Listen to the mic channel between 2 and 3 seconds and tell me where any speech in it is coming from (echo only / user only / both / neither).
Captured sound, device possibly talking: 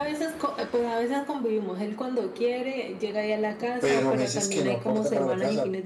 echo only